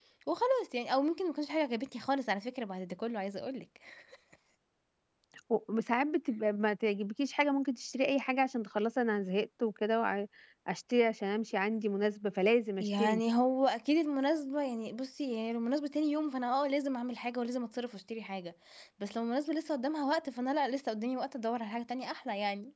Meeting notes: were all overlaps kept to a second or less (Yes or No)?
Yes